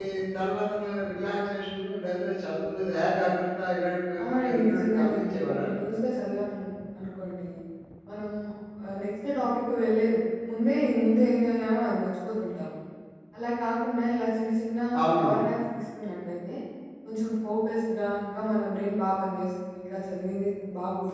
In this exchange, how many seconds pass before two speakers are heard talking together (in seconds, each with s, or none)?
4.2 s